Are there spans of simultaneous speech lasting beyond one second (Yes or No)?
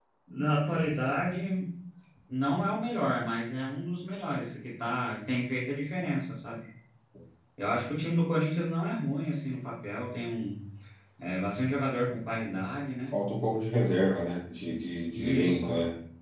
No